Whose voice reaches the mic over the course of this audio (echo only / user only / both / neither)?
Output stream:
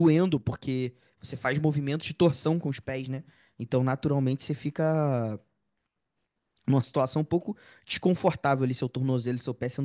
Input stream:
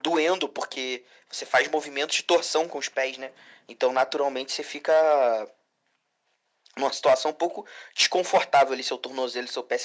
echo only